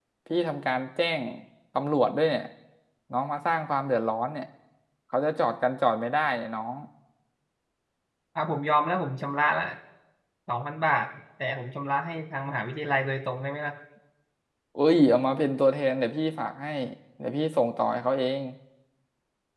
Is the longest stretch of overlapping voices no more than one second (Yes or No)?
Yes